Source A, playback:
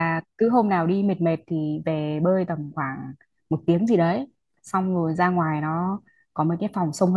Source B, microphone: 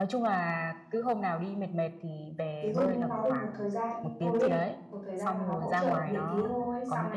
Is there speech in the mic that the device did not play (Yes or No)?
Yes